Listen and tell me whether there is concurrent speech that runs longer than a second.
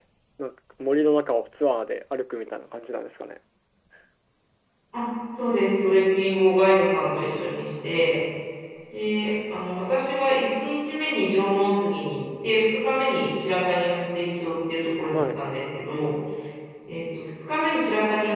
No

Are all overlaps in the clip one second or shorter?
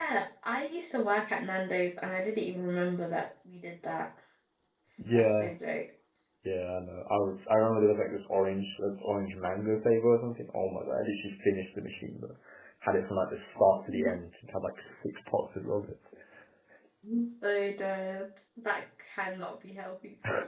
Yes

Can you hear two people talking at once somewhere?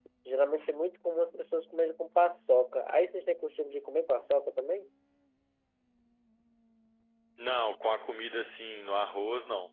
No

